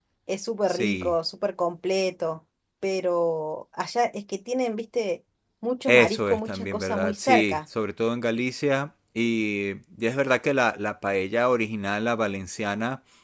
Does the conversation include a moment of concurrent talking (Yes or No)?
Yes